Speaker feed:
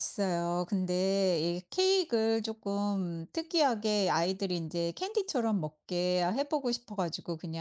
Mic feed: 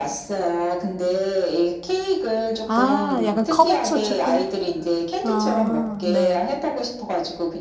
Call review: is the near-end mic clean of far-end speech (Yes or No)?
No